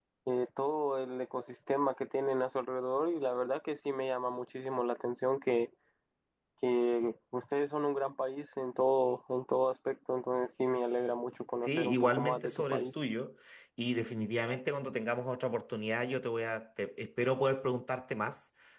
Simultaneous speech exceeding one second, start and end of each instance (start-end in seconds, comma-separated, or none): 11.6-12.9